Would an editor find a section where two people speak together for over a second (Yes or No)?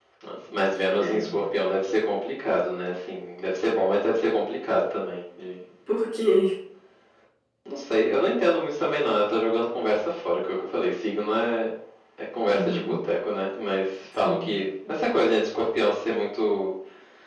No